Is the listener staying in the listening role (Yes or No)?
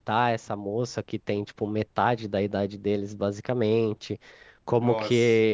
Yes